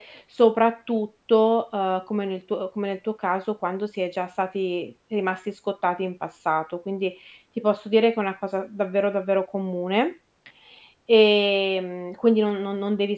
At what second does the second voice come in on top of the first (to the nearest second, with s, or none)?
none